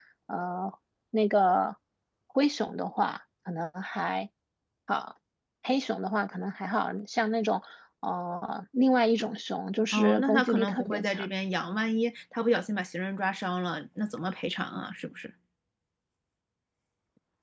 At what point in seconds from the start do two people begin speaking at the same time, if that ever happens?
9.9 s

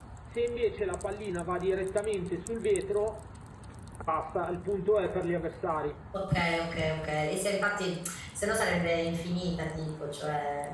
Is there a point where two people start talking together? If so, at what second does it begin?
none

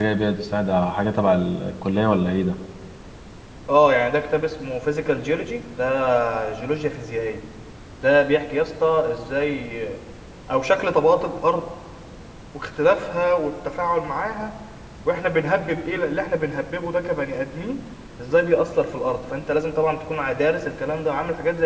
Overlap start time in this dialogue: none

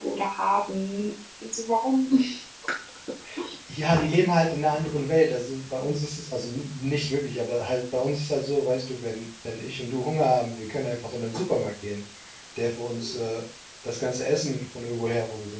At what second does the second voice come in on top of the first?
none

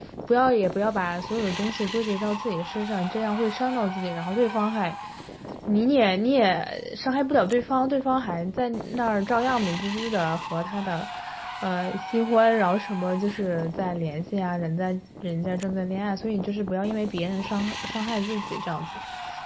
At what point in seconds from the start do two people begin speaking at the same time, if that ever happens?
none

